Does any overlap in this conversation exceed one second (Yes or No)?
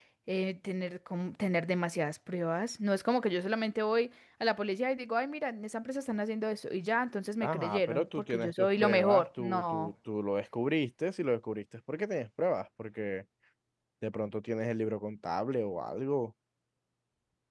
Yes